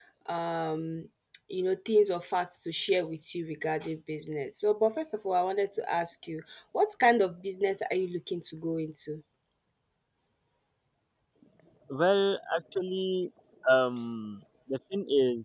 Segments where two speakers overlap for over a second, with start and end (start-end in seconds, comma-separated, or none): none